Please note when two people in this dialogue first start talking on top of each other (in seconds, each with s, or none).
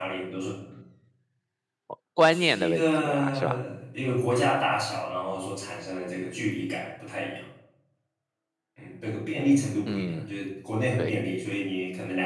2.3 s